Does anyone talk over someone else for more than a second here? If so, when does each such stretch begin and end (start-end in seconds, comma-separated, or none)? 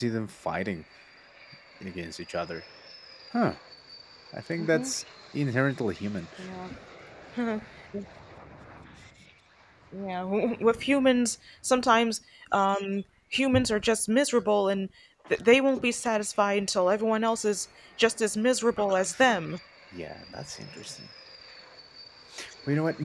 none